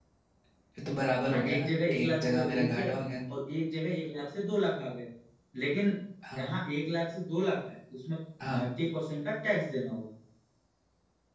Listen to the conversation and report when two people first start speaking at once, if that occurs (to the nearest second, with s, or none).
1 s